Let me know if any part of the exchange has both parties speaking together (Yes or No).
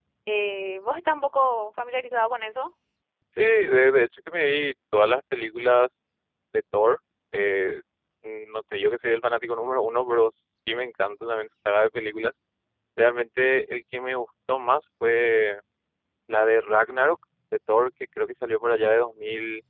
No